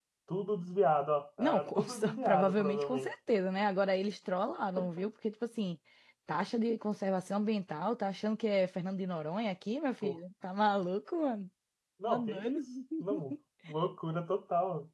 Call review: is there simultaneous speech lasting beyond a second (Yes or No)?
Yes